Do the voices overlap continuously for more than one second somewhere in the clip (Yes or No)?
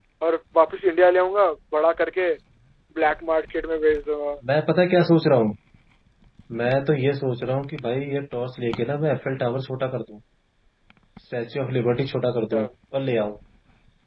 No